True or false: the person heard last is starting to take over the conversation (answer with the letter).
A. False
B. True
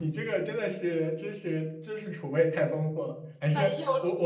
A